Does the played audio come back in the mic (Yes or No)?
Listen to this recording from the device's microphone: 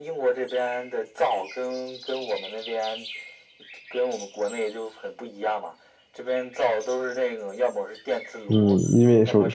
Yes